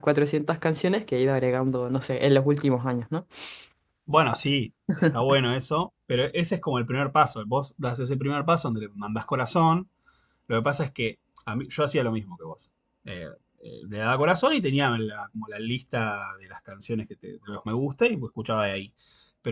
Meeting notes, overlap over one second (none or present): none